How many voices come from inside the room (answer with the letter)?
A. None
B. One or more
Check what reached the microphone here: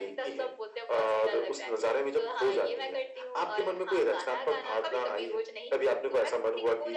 A